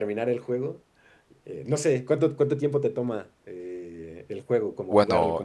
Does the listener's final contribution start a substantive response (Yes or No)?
Yes